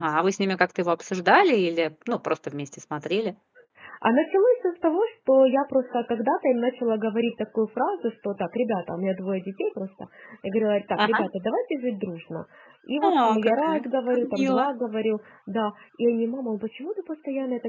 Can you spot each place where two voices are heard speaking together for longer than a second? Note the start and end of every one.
13.0-14.7

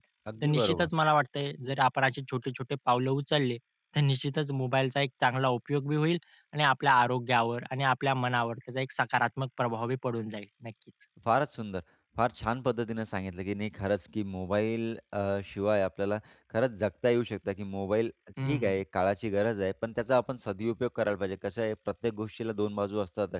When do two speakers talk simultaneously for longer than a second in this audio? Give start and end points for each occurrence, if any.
none

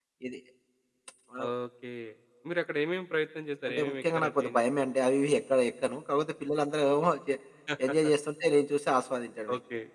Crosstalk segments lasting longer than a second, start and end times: 3.7-4.9

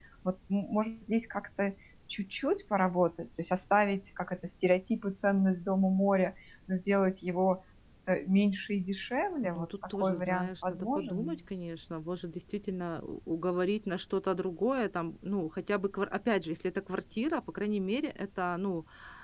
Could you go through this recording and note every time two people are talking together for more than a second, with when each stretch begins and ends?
9.4-11.4

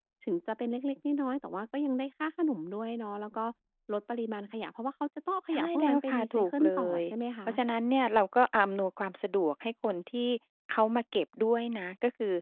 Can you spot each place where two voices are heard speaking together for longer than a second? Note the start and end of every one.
5.5-7.0

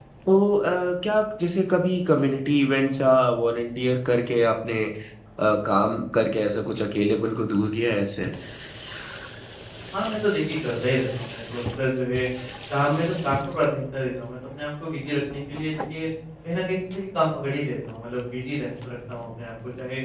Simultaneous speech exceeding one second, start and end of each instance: none

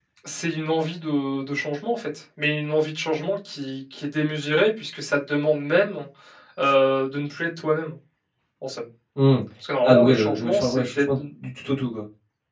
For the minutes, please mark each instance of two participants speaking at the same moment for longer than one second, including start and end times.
9.8-11.2

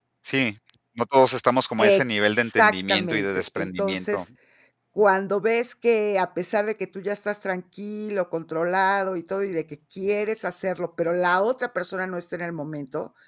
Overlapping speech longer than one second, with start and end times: 1.8-4.2

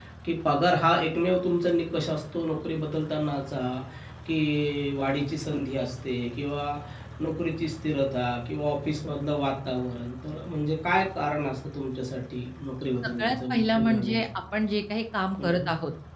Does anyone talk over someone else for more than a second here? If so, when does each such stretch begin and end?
13.0-14.3

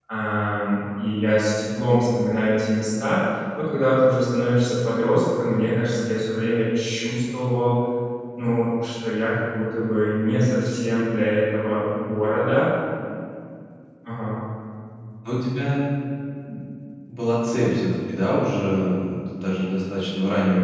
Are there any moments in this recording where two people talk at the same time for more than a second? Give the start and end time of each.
none

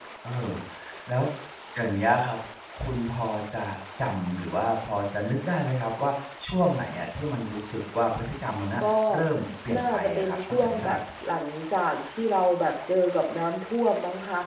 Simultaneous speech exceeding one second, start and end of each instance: 9.8-11.0

